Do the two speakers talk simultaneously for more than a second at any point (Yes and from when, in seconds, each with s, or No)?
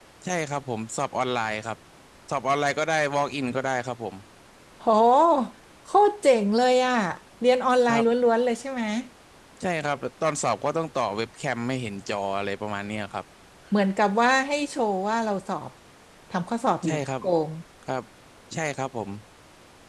No